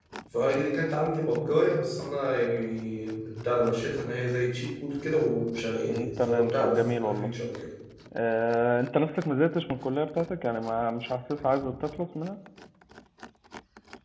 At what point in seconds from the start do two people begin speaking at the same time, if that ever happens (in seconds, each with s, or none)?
5.9 s